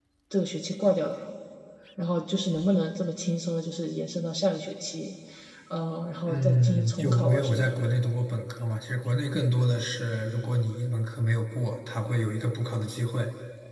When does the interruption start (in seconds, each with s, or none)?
6.3 s